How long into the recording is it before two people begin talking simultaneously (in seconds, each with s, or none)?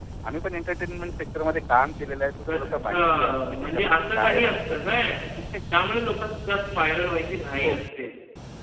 2.5 s